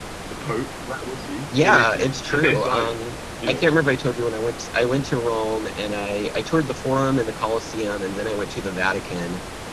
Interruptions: present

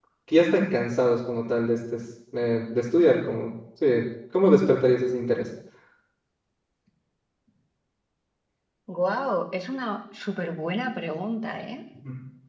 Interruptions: none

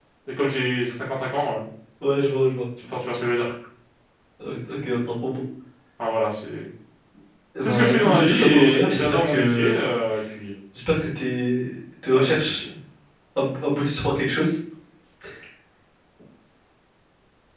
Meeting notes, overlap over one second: present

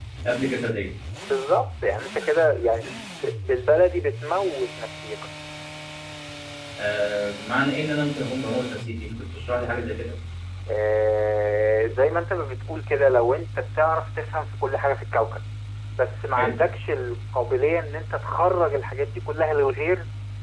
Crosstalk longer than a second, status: none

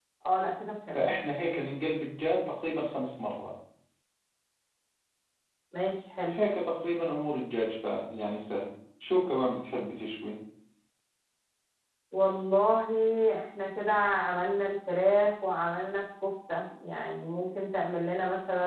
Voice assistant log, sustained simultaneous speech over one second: none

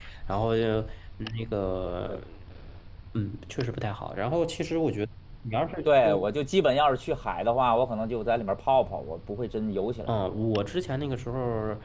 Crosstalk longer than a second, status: none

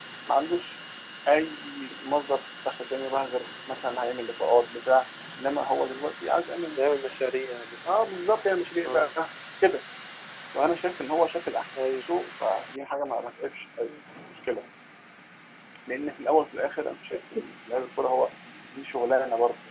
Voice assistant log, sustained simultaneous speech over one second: none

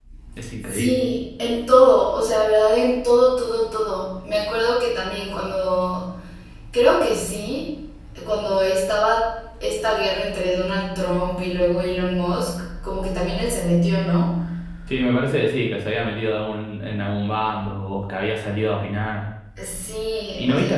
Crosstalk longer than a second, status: none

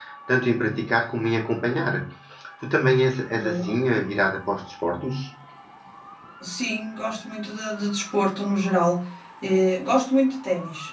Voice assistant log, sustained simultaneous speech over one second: none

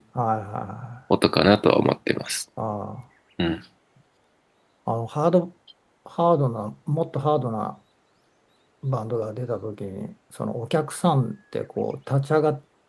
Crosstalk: none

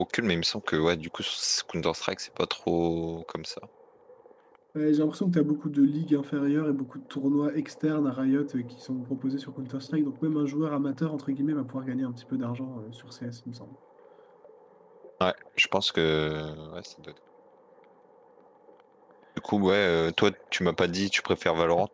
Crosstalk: none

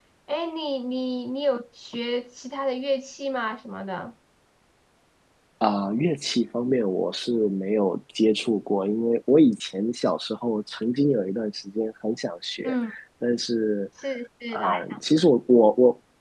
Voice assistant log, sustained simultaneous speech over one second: none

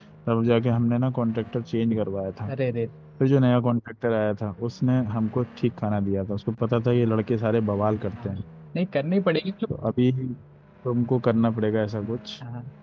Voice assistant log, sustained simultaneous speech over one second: none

